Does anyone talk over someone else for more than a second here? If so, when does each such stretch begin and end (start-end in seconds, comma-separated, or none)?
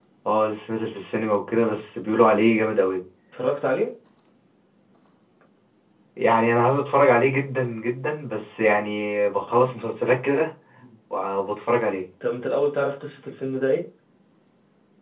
none